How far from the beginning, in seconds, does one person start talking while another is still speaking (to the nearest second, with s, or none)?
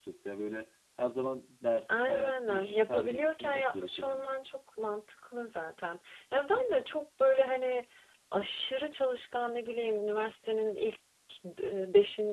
2 s